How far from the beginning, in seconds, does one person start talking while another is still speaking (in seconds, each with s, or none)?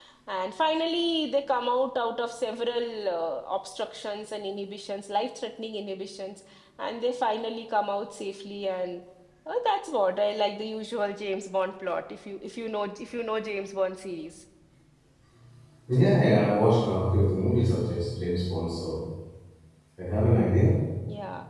none